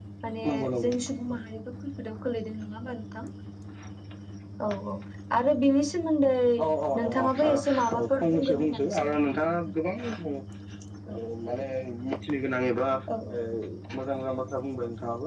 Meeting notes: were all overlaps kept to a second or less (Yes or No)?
No